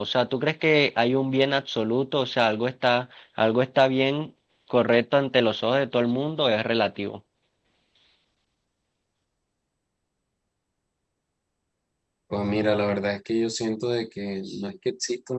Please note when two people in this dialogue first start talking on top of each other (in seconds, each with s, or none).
none